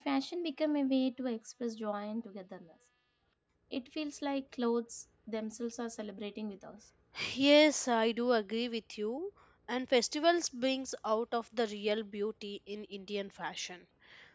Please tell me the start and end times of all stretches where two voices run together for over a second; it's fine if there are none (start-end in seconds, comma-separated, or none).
none